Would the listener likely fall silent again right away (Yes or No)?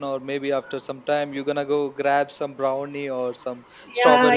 No